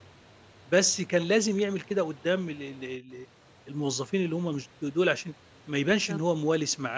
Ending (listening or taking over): listening